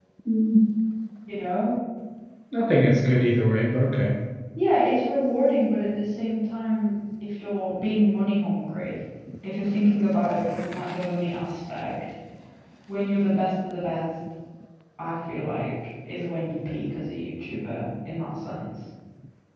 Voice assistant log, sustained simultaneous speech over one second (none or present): none